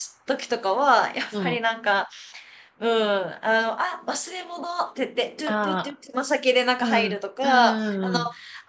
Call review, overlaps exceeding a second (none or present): present